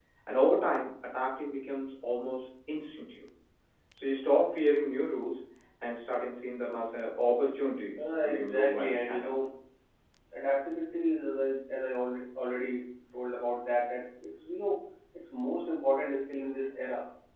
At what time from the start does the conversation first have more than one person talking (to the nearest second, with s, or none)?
8 s